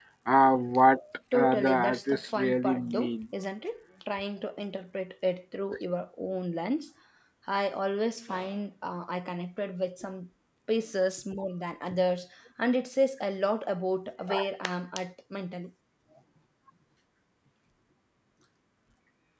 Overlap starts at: 1.3 s

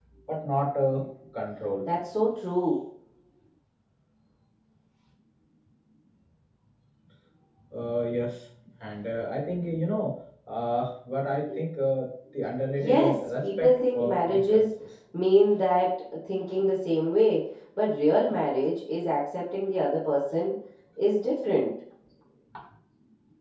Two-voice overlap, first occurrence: 12.8 s

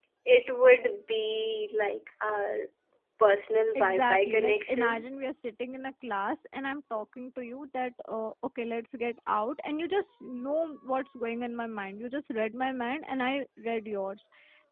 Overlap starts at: 3.8 s

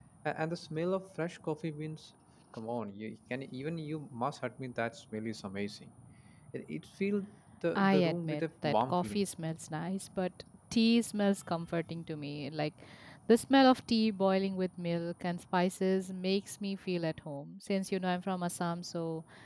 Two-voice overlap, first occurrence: 7.8 s

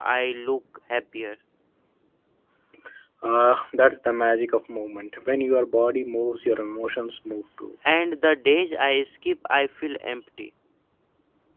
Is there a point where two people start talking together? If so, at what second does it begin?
none

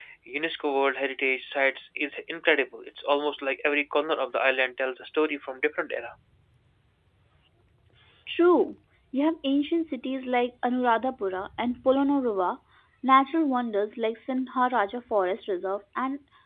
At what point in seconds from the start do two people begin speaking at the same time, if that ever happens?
none

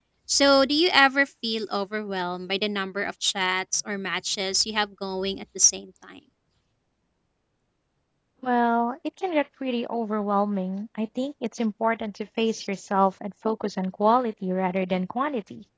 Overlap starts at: none

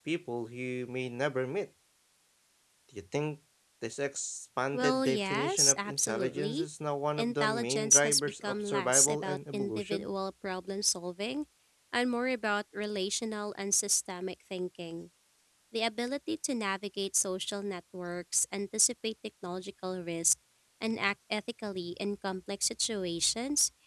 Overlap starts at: 4.7 s

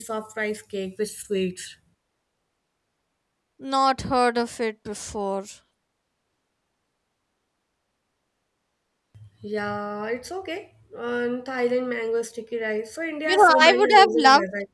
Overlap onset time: 13.3 s

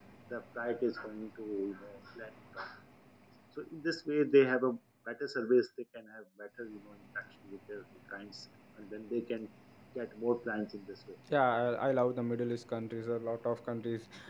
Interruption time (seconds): none

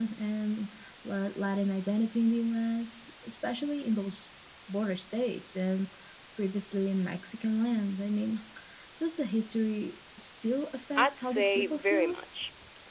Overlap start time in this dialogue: 11.0 s

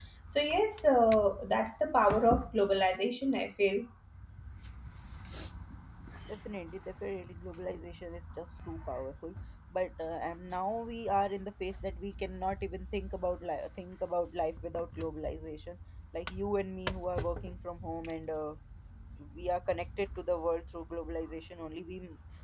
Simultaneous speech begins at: none

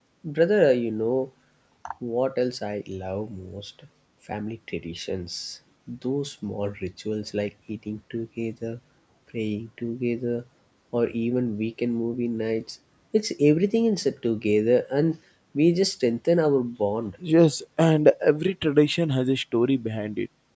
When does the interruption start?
none

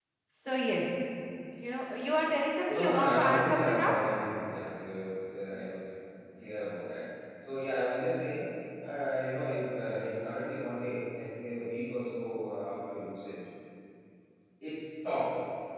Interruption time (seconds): 2.7 s

